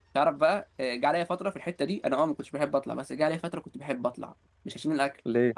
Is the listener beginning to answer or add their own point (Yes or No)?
No